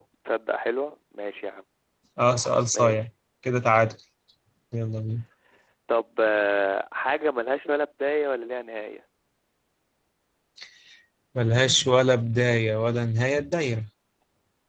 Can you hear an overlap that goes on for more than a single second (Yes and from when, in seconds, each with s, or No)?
No